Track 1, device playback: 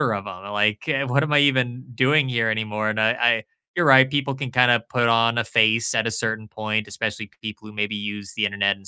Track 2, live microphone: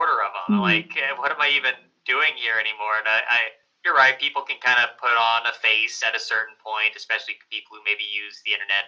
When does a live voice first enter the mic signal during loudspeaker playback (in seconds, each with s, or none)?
0.5 s